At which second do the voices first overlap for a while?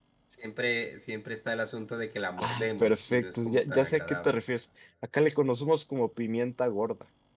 2 s

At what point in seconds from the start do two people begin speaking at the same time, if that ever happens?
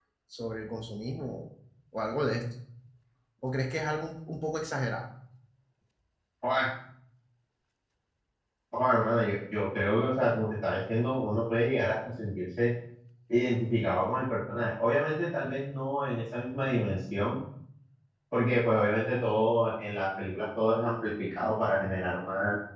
none

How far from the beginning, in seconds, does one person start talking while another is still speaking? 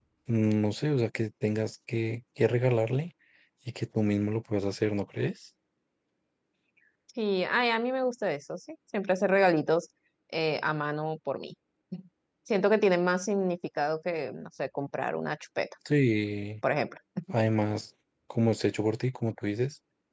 none

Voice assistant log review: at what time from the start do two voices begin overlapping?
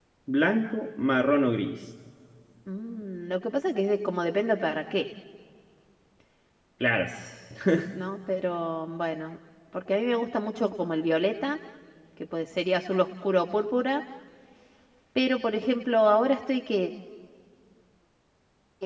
none

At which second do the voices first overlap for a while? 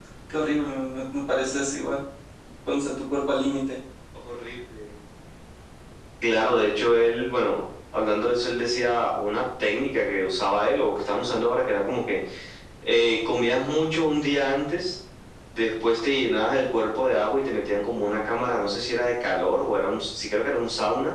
none

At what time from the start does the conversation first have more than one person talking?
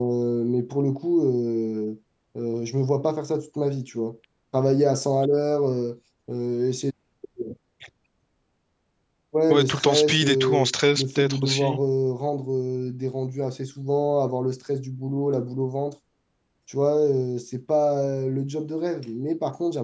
9 s

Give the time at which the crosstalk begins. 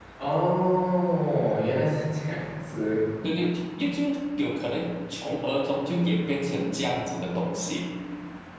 none

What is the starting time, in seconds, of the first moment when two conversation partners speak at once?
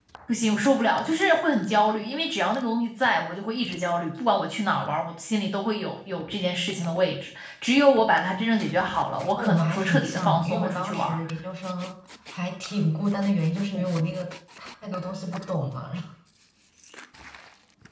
9 s

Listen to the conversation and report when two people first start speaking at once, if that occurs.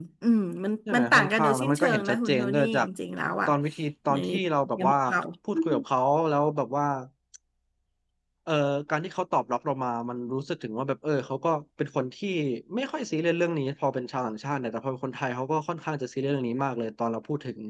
1 s

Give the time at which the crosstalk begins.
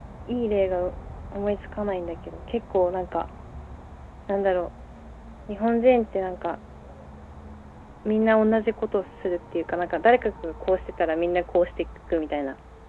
none

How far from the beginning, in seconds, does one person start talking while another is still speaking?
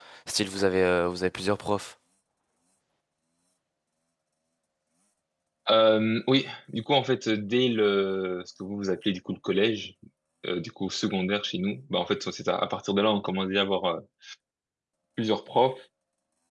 none

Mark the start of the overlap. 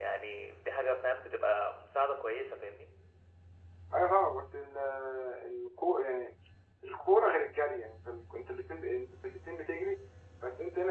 none

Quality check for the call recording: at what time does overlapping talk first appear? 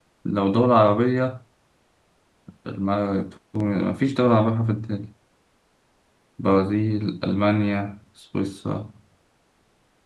none

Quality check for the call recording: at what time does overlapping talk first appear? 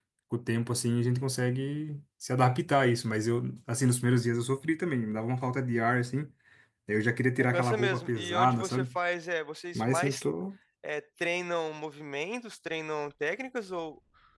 8 s

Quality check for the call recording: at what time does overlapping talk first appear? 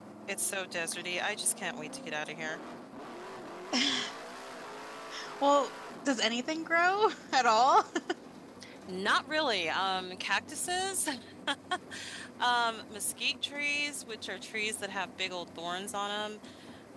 none

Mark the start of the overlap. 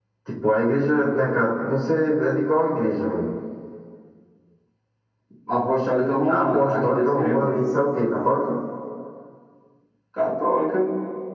6 s

